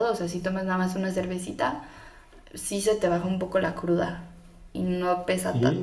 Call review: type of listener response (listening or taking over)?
taking over